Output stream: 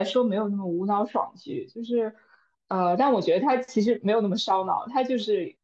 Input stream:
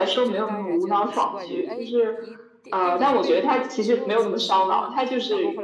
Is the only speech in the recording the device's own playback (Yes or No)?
No